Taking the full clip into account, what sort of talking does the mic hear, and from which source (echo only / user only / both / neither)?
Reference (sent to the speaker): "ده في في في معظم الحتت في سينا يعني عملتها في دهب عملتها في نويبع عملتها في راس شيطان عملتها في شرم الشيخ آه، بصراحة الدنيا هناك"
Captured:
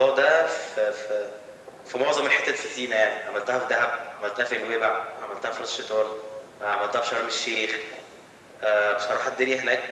echo only